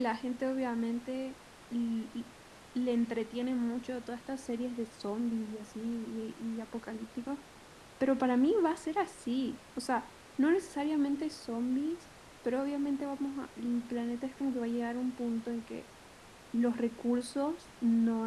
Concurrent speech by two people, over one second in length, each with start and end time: none

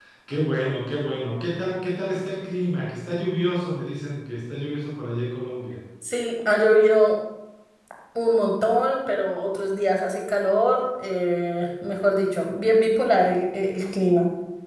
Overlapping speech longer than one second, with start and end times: none

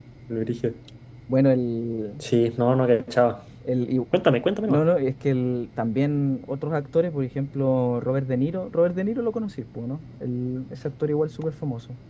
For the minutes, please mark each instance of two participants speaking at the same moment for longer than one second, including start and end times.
none

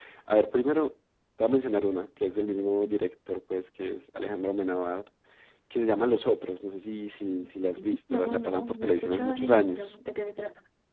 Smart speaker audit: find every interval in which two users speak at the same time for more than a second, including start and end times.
7.6-10.0

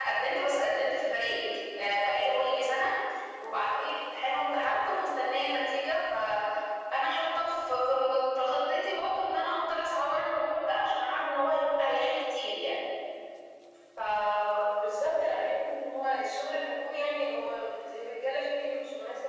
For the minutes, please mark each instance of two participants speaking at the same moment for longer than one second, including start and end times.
none

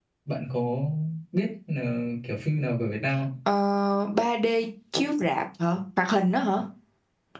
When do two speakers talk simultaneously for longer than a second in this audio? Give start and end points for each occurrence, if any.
none

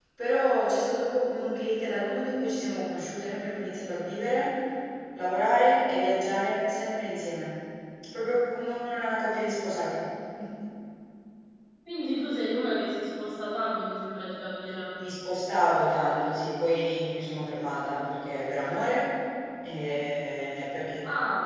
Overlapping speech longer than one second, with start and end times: none

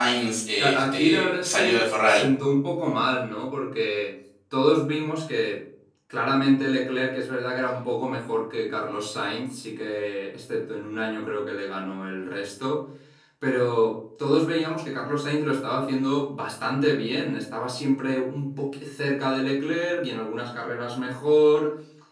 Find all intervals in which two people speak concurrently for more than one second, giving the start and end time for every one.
0.6-2.2

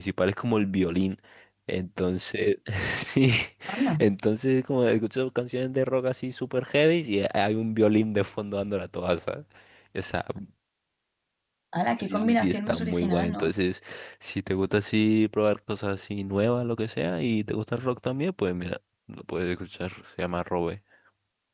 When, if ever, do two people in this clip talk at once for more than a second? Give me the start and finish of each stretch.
12.1-13.5

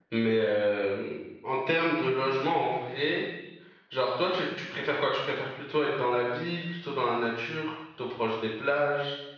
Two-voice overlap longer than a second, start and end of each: none

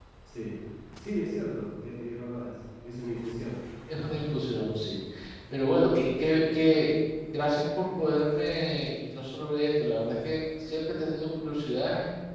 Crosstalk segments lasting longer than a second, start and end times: none

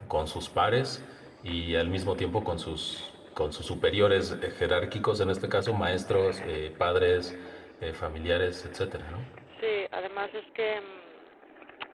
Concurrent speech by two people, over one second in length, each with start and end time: none

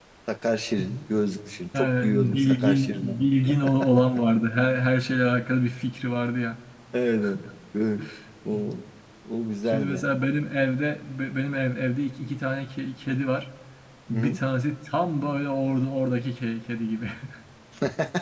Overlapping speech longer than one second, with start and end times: 1.8-3.2

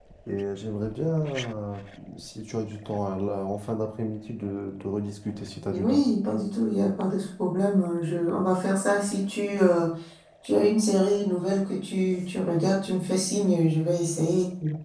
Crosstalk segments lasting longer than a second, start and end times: none

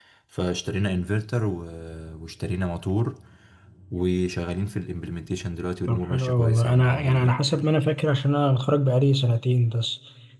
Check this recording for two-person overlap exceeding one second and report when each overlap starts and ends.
5.9-7.3

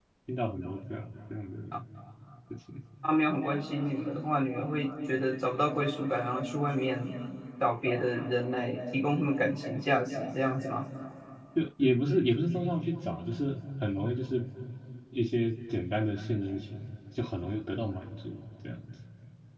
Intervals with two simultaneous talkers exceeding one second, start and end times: none

